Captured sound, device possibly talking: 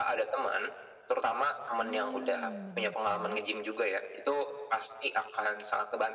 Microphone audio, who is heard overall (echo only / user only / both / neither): both